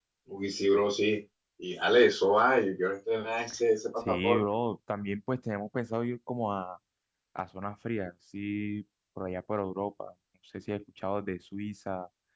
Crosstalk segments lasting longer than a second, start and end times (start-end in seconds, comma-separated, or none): none